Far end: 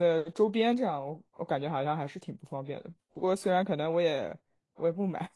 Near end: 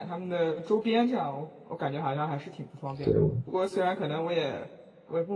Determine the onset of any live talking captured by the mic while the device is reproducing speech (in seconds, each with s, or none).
3.0 s